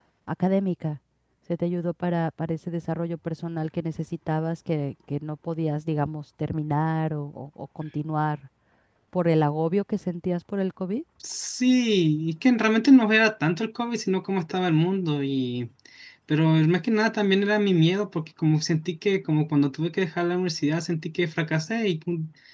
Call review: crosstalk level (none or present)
none